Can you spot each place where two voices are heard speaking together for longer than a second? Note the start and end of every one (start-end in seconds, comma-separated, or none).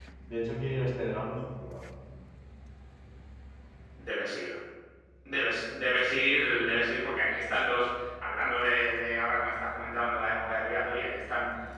none